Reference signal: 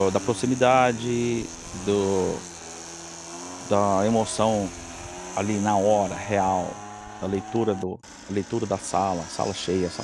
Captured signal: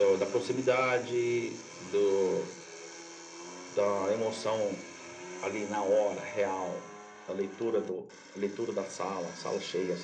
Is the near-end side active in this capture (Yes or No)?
No